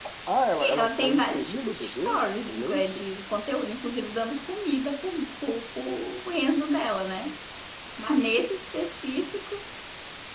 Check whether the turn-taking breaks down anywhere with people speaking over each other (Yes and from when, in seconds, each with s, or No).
Yes, from 0.5 s